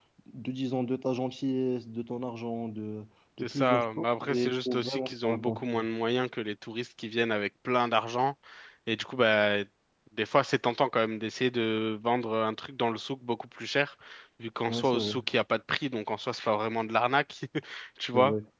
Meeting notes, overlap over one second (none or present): present